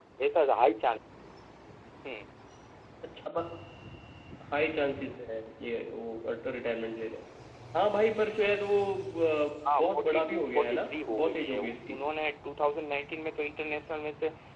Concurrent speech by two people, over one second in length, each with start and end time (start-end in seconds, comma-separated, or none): 9.8-11.8